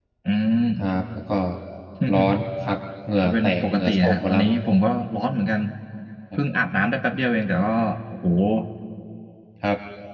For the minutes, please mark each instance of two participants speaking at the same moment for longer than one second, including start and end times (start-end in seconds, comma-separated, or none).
3.2-4.4